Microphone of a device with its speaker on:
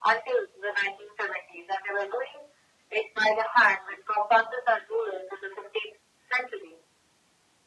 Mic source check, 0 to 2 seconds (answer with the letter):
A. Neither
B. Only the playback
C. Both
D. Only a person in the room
B